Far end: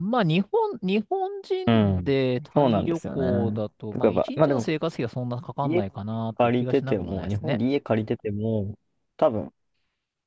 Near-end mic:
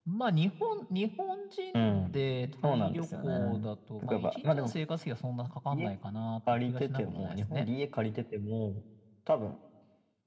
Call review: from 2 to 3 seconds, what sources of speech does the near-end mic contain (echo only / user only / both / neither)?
echo only